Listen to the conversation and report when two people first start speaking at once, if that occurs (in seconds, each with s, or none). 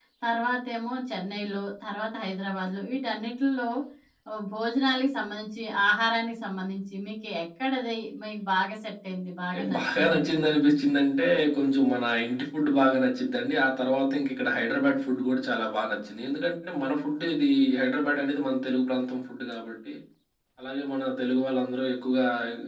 9.5 s